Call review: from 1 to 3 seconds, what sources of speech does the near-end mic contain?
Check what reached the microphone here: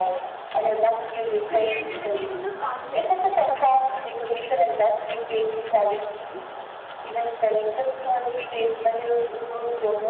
both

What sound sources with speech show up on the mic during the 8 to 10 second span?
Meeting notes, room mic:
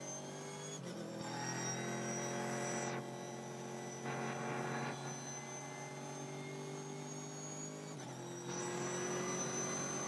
neither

